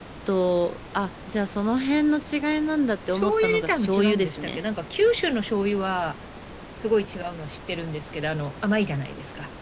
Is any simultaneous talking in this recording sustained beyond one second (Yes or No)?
Yes